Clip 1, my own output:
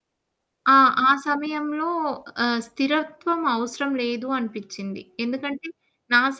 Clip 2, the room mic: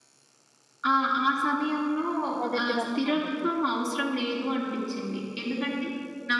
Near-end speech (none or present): present